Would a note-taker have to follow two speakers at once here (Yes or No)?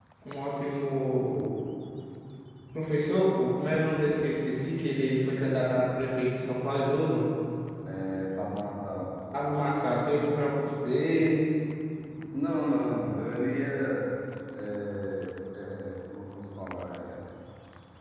No